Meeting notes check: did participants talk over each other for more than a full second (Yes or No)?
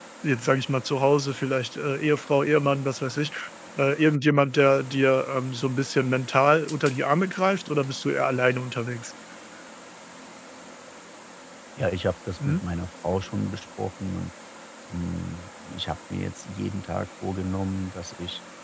No